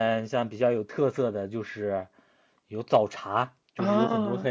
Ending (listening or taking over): listening